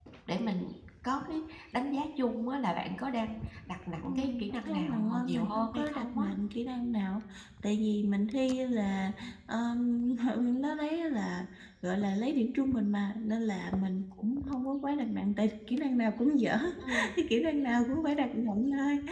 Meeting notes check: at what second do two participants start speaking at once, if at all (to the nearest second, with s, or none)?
4 s